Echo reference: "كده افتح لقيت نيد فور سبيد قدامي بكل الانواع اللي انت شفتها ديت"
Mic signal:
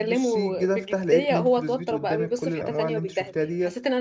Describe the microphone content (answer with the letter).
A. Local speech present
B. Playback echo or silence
A